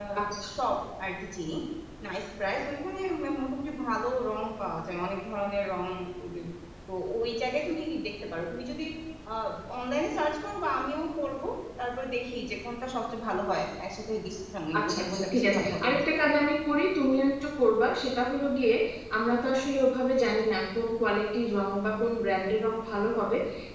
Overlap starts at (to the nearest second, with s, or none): 15 s